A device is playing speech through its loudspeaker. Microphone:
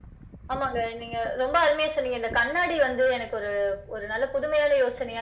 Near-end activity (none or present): none